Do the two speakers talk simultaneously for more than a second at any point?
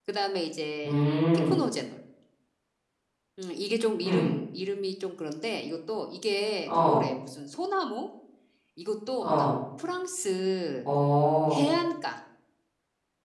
No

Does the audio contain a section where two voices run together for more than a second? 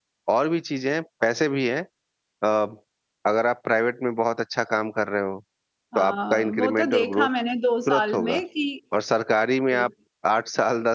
Yes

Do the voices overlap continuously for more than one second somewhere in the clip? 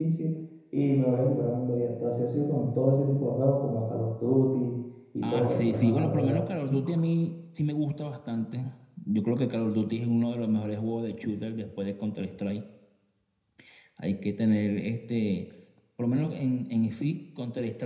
Yes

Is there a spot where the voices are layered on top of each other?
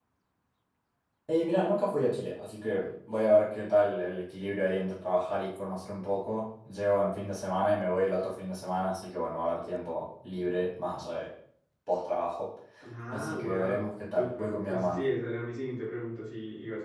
Yes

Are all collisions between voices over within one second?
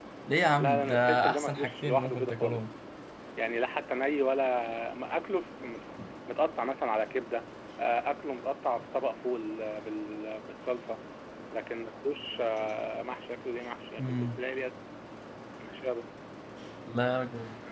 No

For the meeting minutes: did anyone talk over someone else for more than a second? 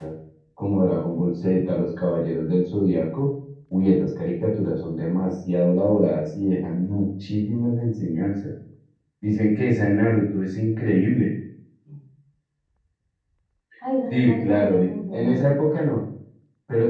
Yes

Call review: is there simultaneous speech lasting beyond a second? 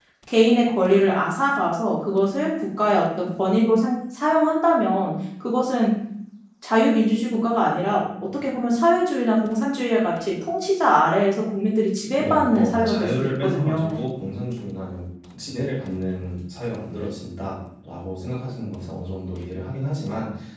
Yes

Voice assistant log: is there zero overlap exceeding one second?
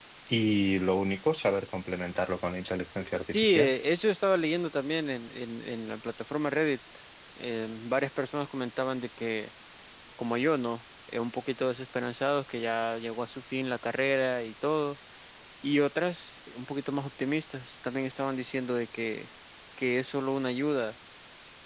Yes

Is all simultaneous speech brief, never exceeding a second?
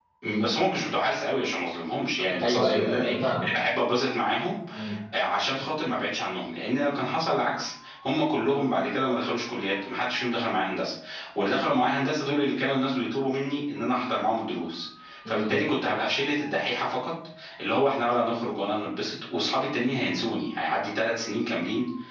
No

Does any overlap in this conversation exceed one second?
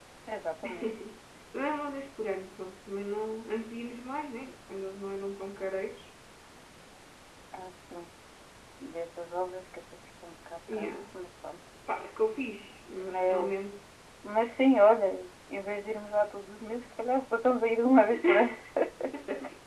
No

